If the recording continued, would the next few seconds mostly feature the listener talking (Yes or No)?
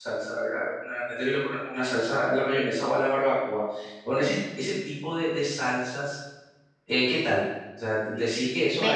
No